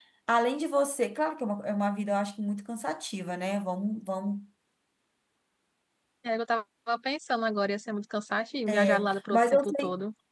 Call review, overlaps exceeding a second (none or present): present